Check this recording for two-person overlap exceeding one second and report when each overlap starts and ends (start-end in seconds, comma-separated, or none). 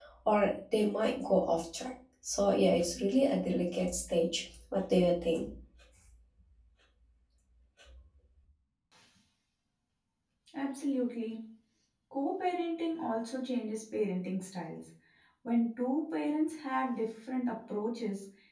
none